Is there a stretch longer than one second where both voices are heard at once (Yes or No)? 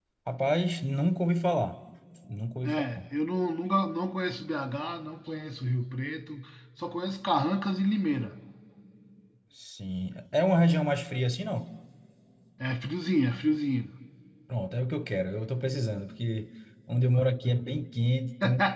No